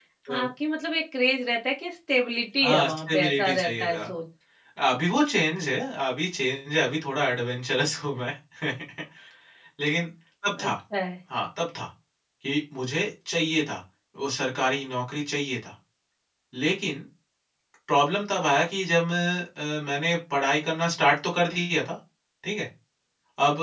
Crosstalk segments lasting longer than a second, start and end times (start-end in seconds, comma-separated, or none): 2.6-4.1